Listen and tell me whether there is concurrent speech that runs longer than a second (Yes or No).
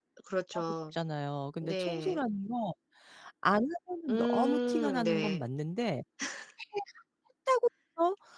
Yes